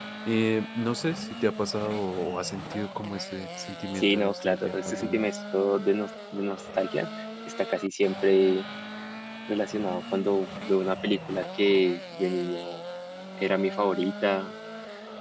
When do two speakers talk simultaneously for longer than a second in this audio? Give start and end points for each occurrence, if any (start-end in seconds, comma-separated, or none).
4.0-5.4